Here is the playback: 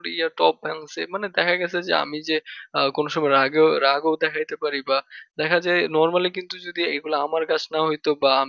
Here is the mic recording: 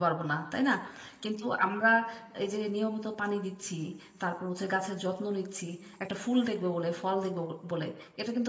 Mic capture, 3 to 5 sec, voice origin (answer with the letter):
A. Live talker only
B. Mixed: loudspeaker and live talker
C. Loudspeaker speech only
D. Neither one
A